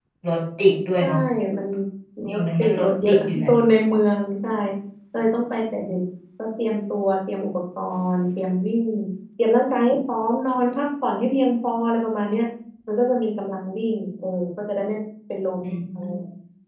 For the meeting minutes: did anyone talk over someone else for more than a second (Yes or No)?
Yes